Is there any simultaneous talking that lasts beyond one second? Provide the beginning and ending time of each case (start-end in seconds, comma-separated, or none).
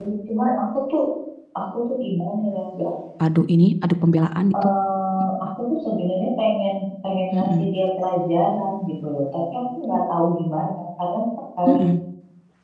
none